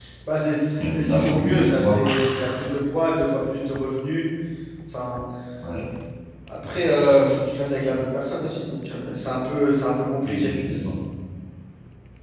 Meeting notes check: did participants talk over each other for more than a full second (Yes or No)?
Yes